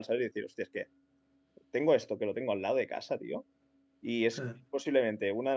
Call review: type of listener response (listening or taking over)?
listening